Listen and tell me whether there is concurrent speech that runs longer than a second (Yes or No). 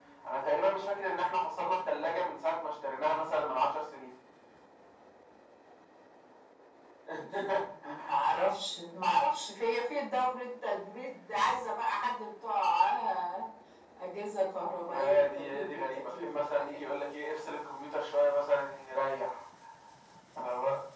Yes